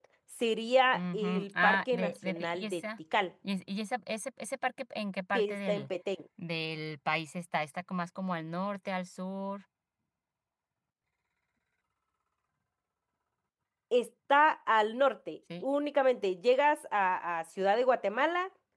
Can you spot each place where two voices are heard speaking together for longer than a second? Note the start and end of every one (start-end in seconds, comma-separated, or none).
0.9-2.8